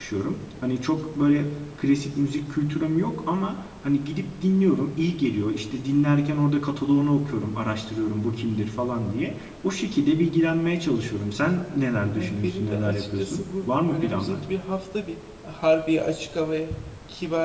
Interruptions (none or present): present